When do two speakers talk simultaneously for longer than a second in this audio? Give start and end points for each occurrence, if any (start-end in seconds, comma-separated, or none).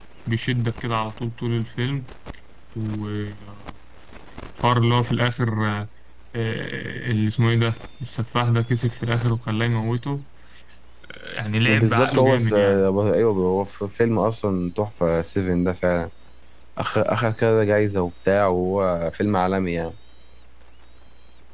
11.7-12.9